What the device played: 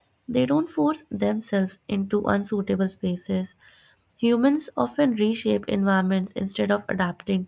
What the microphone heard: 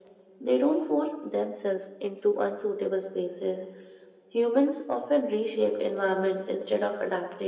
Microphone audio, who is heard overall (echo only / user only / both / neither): echo only